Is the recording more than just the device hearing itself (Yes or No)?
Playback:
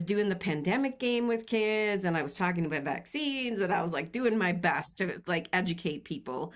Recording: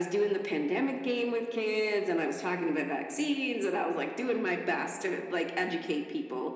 No